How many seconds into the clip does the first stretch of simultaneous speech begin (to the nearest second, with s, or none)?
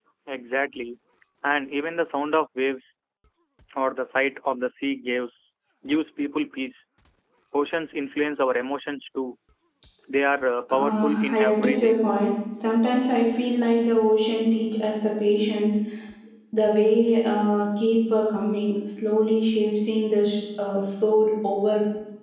11 s